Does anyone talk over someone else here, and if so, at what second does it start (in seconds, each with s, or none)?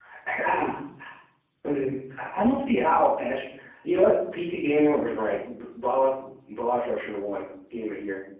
none